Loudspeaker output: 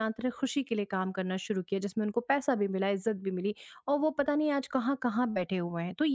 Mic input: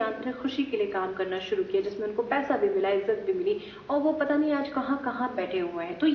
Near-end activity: none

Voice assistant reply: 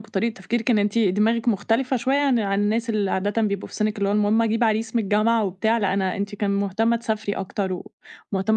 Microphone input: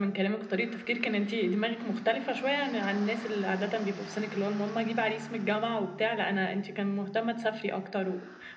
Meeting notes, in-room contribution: none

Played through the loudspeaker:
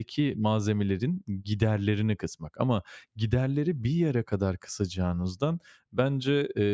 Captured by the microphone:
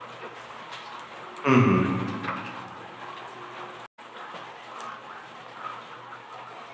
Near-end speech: present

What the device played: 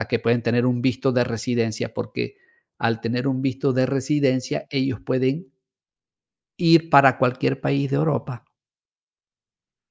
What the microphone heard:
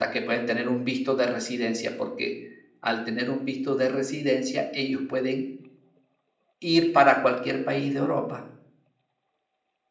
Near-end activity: none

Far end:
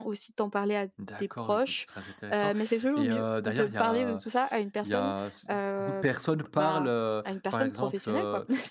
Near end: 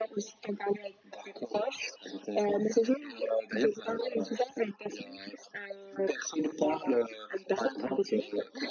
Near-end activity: none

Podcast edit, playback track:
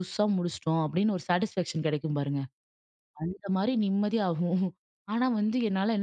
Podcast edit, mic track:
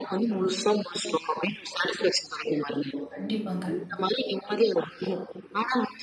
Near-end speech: present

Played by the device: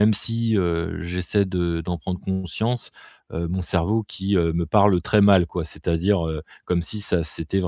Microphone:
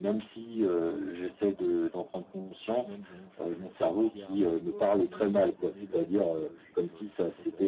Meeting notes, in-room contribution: present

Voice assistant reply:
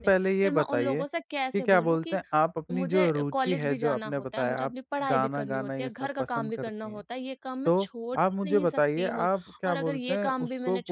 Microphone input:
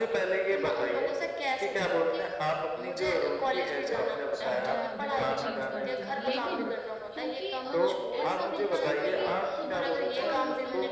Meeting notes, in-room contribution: present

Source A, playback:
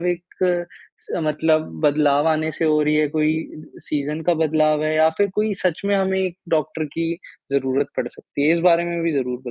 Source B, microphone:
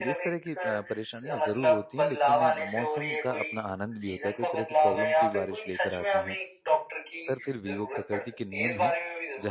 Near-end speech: present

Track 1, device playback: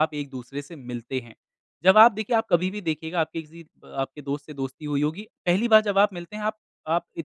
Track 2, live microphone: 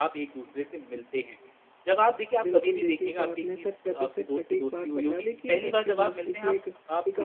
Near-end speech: present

